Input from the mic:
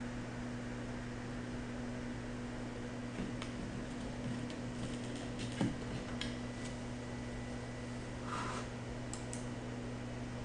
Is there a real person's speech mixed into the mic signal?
No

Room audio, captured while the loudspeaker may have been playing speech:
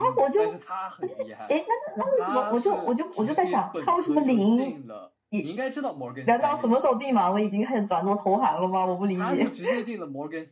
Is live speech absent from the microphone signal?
No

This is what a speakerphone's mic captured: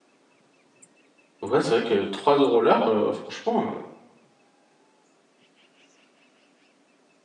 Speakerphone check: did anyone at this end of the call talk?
Yes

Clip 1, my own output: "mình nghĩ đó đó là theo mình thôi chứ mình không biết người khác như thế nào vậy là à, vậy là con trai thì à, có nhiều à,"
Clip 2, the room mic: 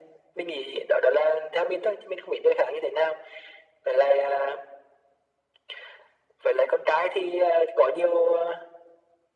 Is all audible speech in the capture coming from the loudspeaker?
Yes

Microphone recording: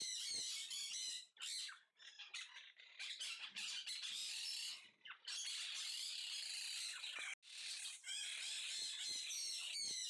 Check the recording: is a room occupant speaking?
No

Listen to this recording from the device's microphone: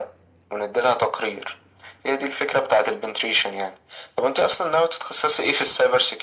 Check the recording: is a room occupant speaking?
No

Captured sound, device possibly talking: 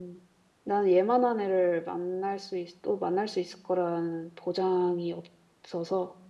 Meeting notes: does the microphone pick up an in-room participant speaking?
Yes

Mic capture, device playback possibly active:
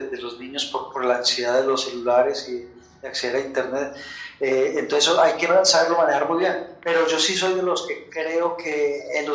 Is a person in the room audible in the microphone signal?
No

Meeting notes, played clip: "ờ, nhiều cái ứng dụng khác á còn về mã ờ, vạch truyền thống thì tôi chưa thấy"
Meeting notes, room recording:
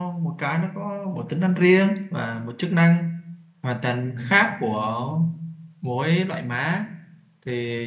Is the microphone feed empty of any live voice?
No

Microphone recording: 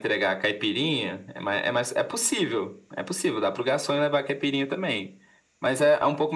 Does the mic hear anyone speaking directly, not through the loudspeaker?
No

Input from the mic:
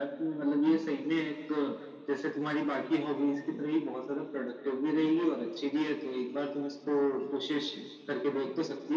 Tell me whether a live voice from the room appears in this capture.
No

